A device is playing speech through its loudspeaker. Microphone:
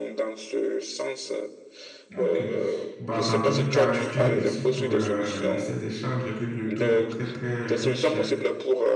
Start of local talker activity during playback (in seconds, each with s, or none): 2.1 s